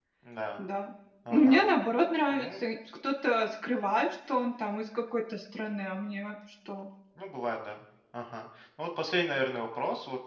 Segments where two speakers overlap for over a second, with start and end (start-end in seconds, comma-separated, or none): none